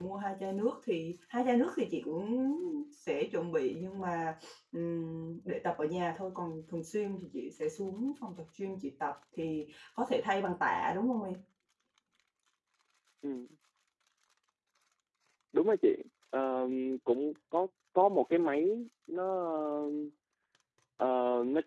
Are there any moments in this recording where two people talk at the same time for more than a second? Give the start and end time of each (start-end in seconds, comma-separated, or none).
none